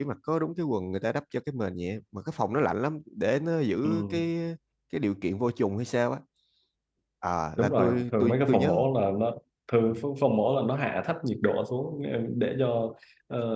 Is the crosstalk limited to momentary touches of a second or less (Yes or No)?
No